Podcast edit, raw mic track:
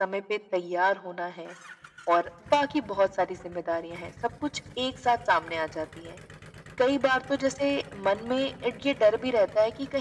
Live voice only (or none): none